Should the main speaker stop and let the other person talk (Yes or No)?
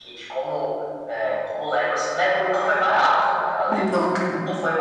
No